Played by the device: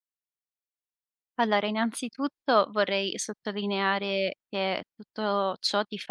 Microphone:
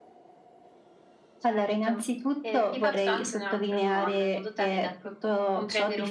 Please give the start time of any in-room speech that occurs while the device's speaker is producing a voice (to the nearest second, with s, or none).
1 s